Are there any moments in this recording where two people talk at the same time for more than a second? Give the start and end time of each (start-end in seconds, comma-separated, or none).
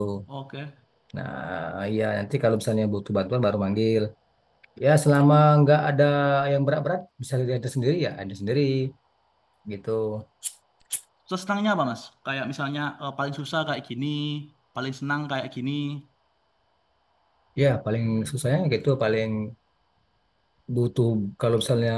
none